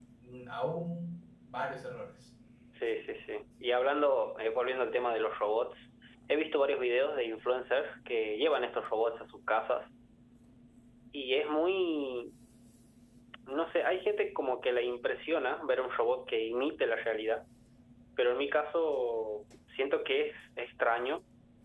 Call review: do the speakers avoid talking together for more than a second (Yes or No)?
Yes